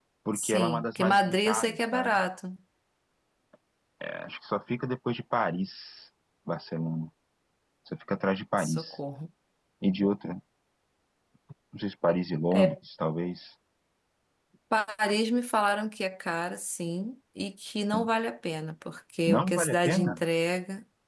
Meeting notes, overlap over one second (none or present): present